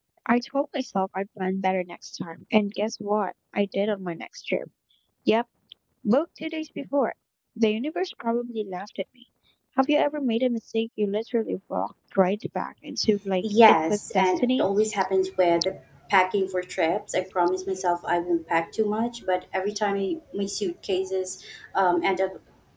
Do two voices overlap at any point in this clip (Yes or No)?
Yes